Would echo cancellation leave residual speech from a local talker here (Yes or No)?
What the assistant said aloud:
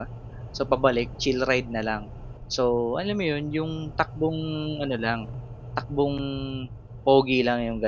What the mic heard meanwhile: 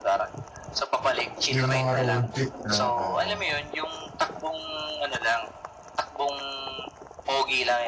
Yes